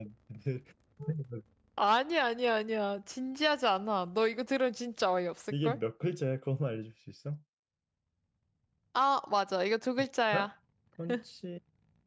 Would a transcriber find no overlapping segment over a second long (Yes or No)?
Yes